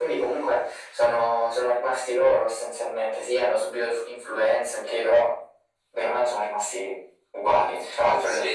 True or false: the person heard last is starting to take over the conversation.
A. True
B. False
B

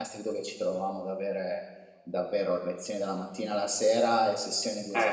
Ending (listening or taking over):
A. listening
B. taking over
B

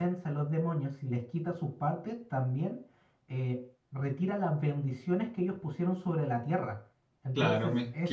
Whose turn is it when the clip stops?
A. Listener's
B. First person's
A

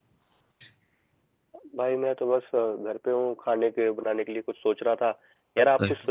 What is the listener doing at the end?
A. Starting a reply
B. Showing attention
B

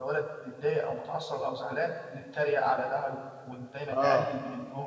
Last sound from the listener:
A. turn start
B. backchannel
B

